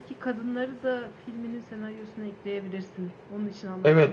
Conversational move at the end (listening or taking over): taking over